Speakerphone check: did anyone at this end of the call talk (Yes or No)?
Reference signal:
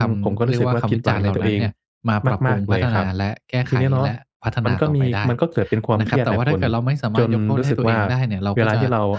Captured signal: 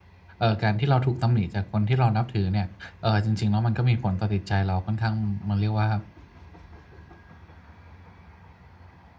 Yes